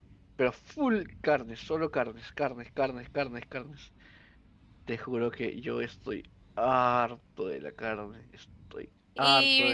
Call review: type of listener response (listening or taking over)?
taking over